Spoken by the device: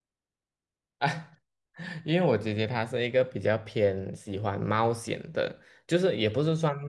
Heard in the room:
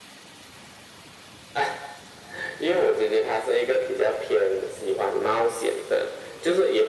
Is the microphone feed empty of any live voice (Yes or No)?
Yes